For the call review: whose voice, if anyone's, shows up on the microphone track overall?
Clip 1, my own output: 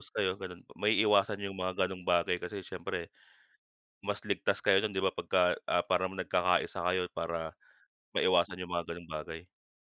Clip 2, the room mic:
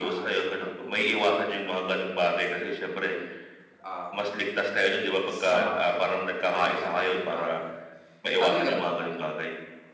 both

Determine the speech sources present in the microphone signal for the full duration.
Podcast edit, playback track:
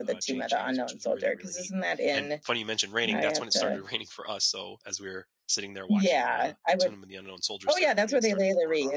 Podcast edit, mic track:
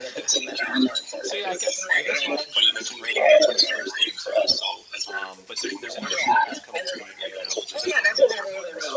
both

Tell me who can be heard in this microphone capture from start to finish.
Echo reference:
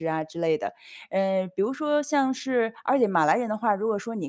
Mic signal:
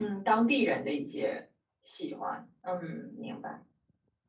user only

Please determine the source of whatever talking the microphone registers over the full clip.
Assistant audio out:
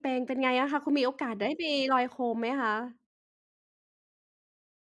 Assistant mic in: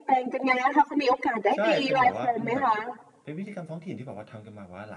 both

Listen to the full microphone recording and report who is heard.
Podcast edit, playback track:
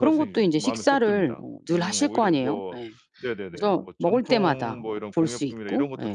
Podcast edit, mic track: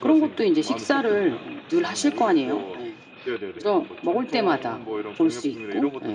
echo only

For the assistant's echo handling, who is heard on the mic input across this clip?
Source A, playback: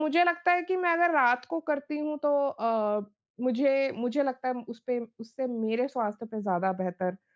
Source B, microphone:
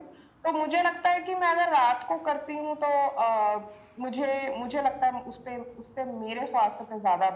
echo only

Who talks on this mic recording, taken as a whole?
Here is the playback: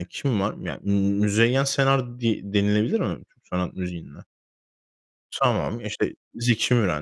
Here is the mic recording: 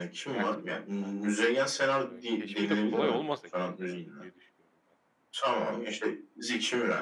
both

